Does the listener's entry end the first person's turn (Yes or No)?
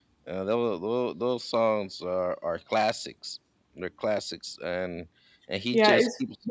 Yes